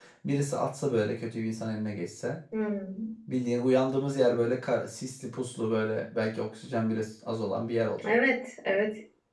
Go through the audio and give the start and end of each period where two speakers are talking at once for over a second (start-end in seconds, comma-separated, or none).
none